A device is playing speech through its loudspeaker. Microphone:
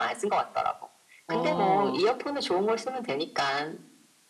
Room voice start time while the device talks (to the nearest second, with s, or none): 1 s